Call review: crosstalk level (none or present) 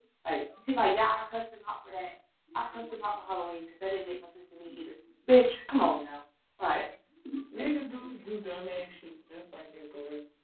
none